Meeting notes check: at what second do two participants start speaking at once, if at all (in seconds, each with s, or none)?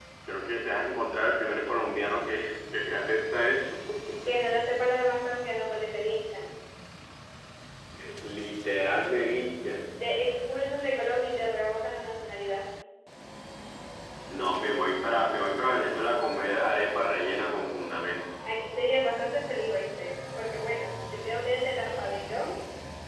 none